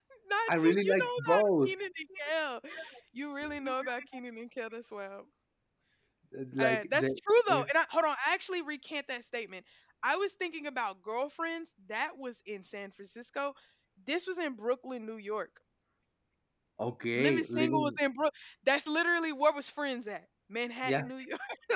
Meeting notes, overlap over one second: present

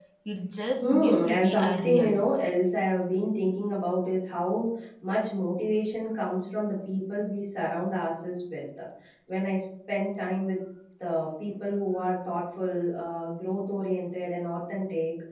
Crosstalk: present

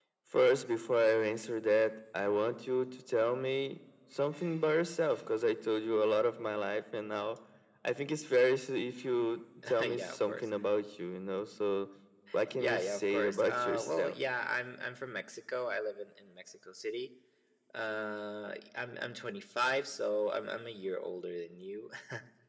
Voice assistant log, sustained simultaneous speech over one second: present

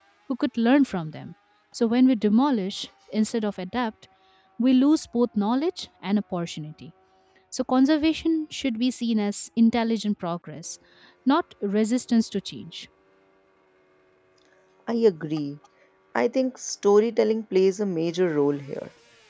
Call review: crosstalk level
none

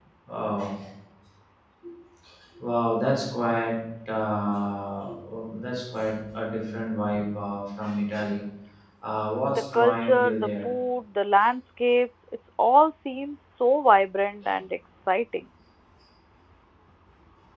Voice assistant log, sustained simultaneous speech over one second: present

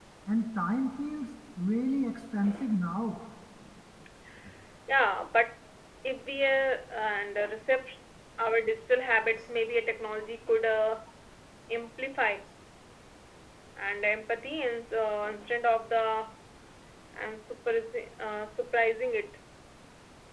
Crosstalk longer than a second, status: none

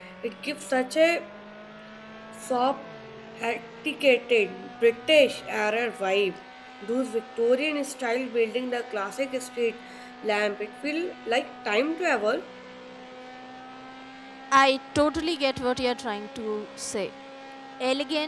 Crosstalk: none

